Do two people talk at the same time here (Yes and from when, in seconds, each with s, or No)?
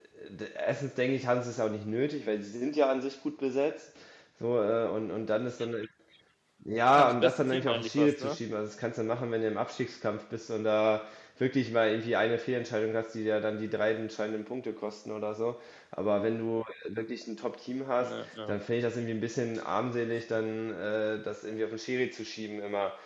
Yes, from 7.0 s